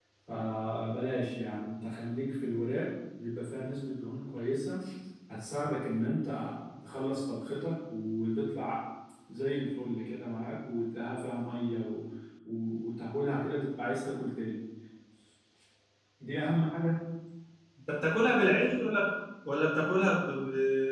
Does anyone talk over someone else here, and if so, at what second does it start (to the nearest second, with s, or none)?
none